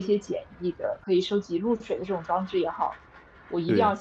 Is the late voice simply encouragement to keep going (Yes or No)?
Yes